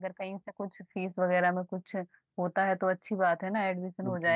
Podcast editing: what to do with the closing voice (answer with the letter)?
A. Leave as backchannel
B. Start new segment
B